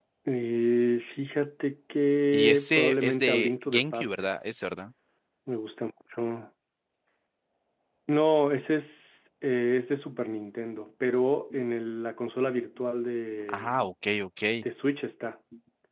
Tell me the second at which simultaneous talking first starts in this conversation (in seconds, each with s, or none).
2.3 s